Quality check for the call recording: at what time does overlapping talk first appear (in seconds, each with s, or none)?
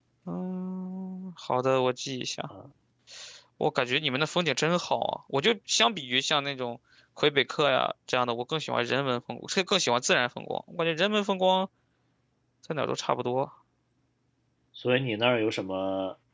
none